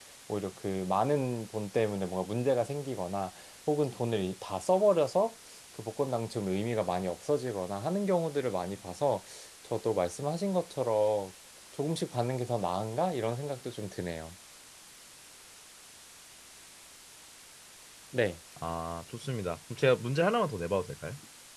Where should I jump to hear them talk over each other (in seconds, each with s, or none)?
none